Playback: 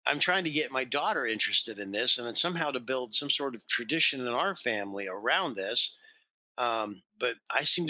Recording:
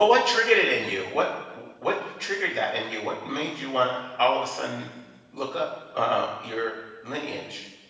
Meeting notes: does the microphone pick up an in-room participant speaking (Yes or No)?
Yes